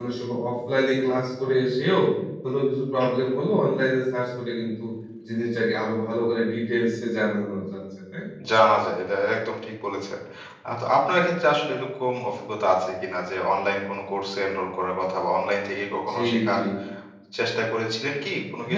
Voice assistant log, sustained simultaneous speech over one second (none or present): none